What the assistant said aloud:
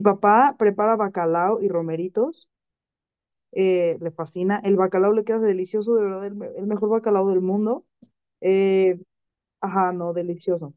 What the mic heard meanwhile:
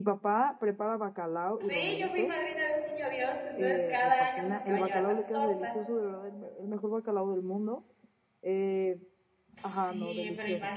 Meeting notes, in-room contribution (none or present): present